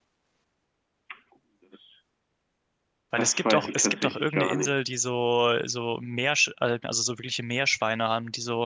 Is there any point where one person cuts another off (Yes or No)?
Yes